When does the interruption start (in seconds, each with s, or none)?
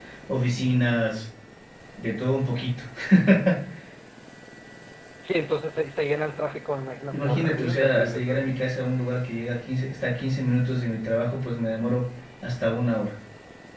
7.1 s